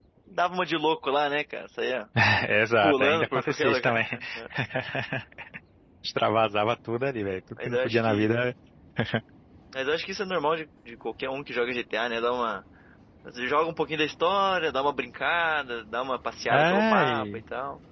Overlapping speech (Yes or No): Yes